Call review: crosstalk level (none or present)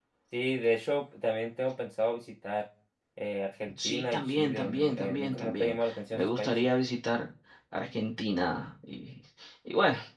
present